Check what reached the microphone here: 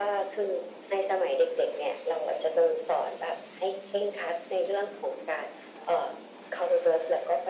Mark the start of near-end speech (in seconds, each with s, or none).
none